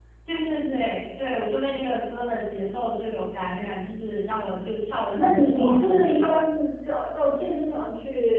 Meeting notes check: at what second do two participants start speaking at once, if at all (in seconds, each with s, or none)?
5.2 s